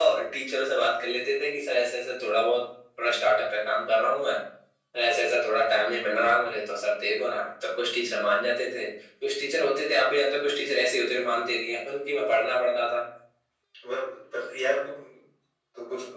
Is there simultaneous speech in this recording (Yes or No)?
No